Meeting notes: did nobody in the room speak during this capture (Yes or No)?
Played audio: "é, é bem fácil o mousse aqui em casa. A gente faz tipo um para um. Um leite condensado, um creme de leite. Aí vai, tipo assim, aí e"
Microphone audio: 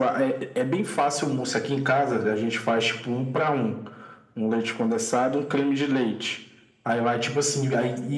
Yes